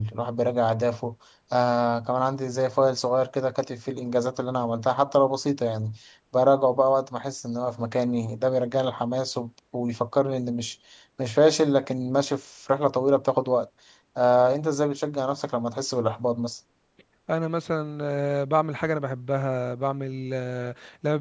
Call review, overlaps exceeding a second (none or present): none